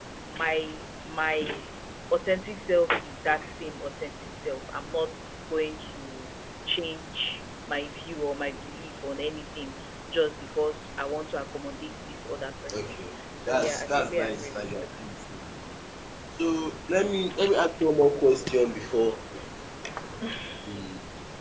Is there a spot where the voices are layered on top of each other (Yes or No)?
Yes